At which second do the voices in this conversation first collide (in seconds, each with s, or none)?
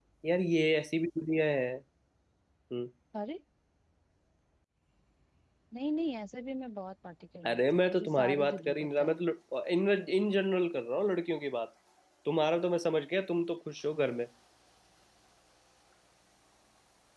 7.4 s